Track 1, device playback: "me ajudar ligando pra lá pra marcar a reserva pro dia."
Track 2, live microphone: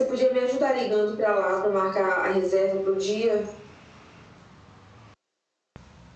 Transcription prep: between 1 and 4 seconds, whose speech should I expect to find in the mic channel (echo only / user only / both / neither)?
echo only